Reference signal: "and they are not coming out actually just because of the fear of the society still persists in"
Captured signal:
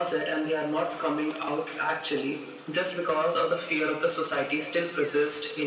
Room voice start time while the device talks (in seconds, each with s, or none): none